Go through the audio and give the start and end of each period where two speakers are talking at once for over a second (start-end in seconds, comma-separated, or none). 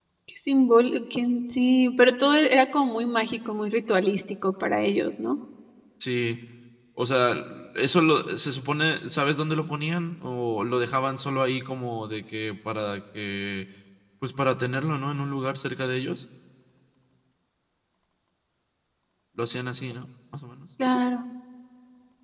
none